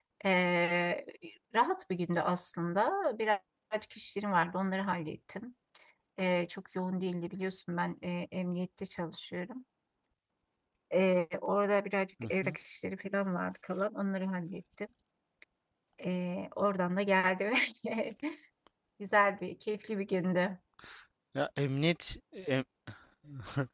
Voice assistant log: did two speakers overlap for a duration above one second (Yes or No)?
No